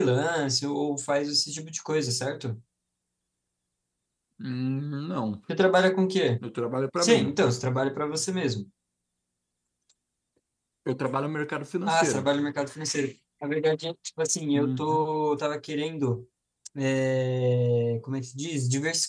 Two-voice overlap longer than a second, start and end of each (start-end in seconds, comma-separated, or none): none